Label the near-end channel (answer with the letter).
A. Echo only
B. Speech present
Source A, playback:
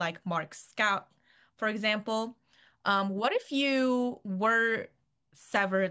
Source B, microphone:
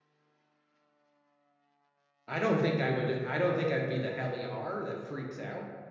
B